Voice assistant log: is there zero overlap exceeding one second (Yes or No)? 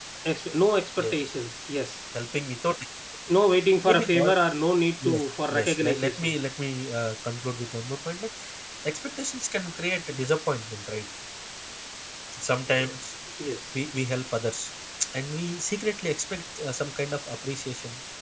No